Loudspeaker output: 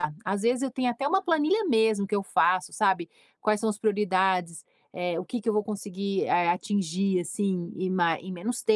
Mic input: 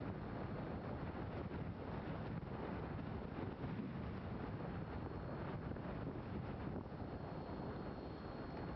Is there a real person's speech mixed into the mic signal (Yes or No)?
No